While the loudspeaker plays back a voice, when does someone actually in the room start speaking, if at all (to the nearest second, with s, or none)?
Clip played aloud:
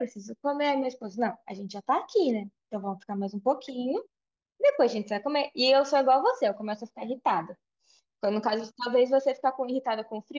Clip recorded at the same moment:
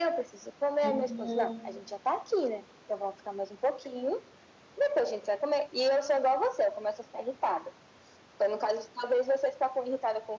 1 s